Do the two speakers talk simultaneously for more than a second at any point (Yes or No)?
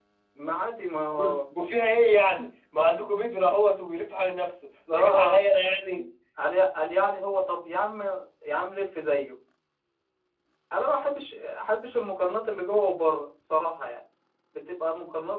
No